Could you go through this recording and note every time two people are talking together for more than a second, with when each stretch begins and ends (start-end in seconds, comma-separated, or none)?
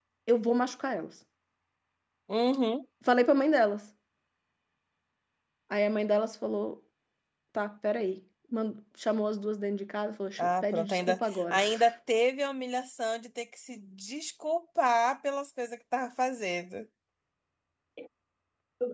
10.4-11.6